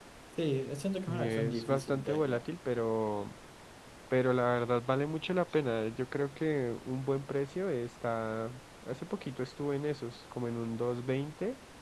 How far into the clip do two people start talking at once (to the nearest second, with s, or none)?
1 s